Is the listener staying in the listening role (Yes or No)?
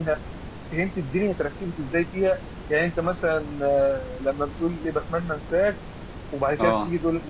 Yes